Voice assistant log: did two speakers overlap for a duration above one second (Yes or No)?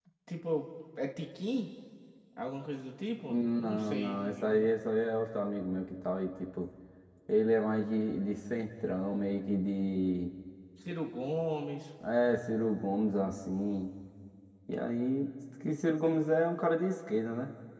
Yes